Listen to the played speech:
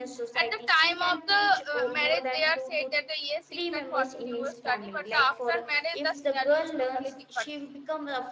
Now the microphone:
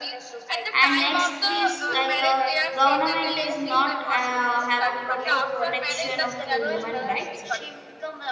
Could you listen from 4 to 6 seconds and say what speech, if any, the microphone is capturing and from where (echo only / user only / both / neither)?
both